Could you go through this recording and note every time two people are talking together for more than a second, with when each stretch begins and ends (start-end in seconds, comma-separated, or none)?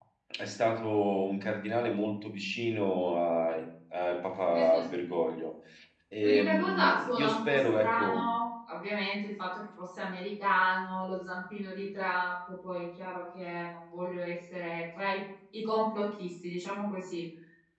6.2-8.2